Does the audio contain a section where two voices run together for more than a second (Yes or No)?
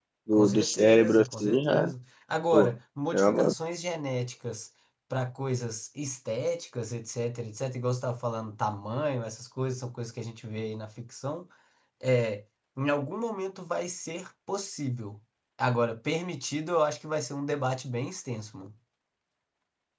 Yes